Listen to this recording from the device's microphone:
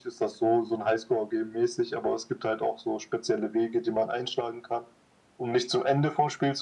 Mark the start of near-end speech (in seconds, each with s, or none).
none